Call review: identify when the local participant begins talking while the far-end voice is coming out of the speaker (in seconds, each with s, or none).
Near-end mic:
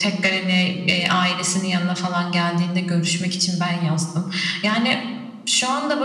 none